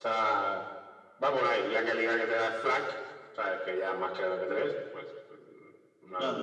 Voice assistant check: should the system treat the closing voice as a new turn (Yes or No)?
Yes